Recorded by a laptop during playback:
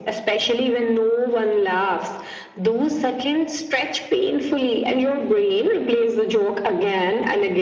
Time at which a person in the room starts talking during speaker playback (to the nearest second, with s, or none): none